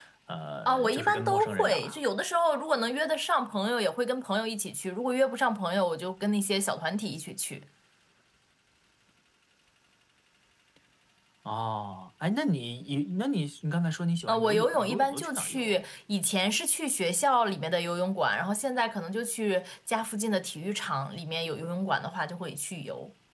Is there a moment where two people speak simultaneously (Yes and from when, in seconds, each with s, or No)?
Yes, from 0.7 s